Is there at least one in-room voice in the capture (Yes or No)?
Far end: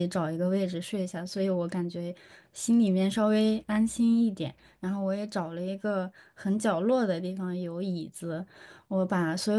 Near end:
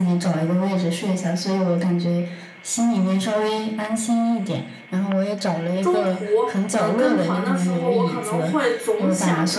Yes